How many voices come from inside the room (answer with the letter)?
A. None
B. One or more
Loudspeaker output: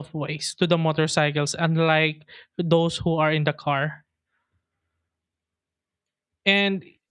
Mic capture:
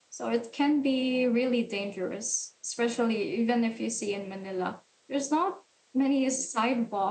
B